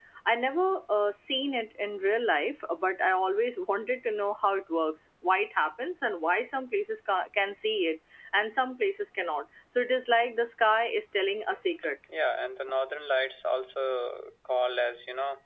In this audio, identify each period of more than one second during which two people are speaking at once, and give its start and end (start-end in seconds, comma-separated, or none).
none